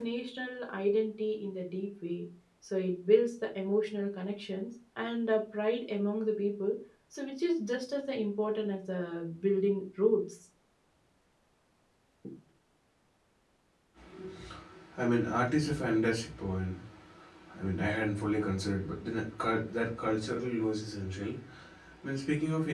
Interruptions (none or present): none